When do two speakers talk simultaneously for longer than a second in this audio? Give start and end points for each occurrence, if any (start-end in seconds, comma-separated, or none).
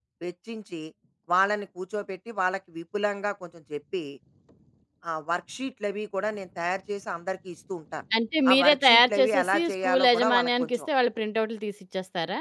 8.5-10.8